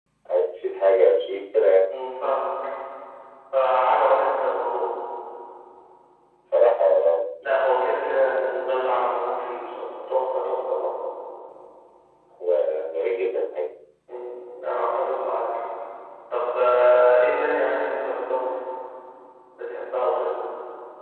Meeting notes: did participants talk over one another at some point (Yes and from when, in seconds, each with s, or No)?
No